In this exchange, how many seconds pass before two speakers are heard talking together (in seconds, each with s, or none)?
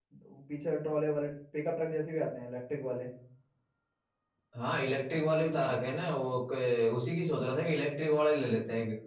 none